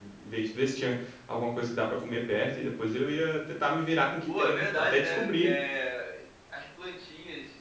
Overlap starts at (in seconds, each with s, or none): 4.3 s